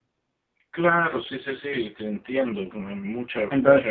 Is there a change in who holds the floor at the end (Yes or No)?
Yes